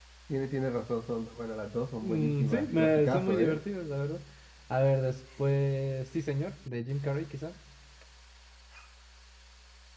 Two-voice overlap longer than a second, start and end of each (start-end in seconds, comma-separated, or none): 2.0-3.6